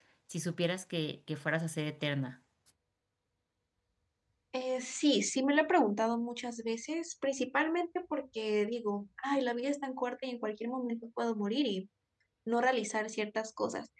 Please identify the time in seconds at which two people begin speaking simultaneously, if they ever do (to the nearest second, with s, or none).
none